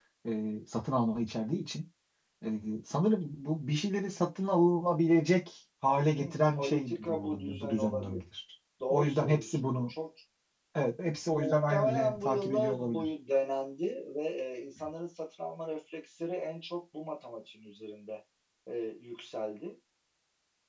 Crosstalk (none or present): present